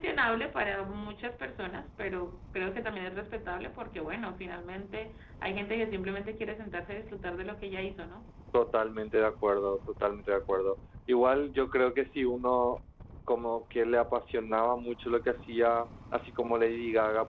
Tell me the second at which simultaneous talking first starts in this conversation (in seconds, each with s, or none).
none